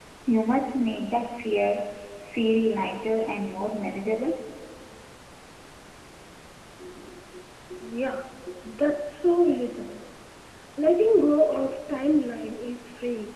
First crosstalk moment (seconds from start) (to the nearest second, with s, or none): none